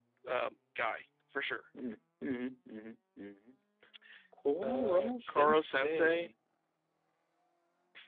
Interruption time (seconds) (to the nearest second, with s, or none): 5 s